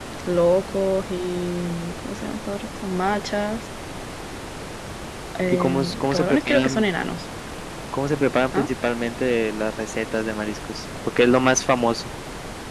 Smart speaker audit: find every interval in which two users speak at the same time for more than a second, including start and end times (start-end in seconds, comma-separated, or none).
5.5-6.8